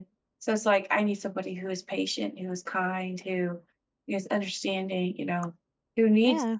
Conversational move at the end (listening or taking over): listening